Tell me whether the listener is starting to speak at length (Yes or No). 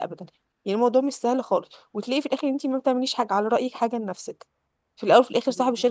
No